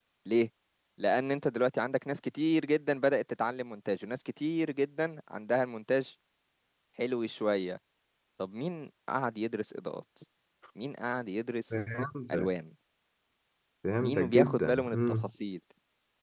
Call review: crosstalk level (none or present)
present